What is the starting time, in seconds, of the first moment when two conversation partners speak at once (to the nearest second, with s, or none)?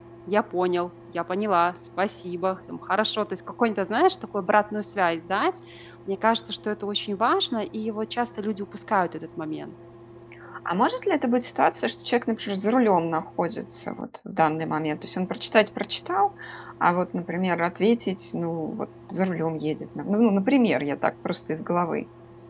none